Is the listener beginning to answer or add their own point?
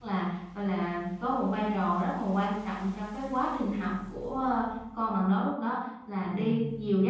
No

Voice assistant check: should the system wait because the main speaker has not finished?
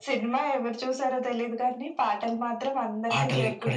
No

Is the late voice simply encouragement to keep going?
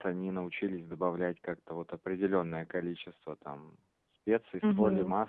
Yes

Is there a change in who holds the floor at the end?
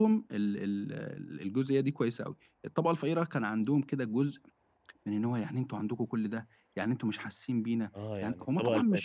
Yes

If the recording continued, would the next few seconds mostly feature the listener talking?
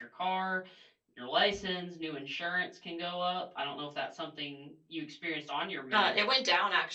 Yes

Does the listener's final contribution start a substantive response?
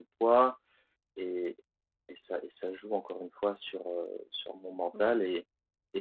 No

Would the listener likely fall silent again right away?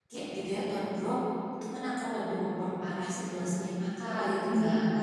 No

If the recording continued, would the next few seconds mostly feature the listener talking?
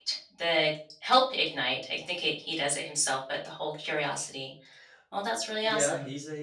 Yes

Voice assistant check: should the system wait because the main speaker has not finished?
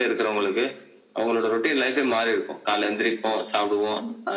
Yes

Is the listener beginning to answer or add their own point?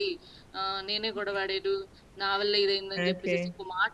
No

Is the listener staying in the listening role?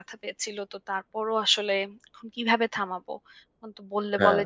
Yes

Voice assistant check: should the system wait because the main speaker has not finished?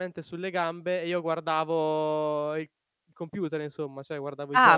No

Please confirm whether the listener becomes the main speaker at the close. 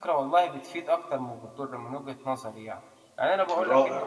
No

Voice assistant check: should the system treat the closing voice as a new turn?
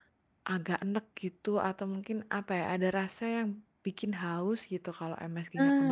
Yes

